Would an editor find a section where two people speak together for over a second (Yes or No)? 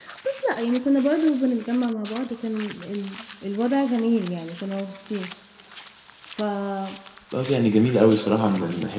No